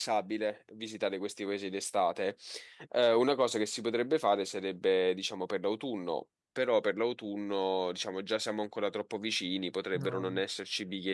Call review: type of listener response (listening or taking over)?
listening